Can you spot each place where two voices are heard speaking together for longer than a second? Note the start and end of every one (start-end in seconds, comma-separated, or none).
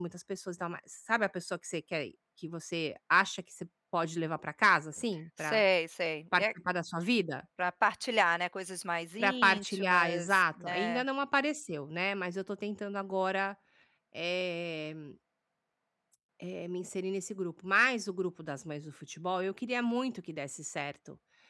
9.2-11.0